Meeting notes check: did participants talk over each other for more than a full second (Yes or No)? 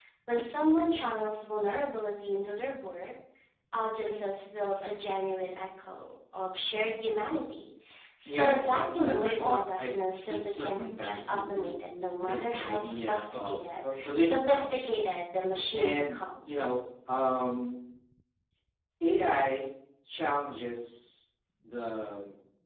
Yes